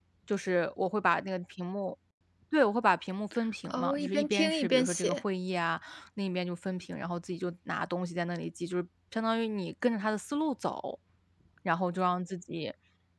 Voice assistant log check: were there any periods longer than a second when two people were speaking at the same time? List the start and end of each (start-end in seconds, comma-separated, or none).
3.7-5.2